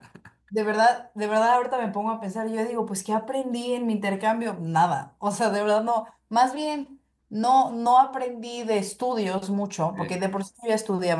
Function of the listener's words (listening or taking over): listening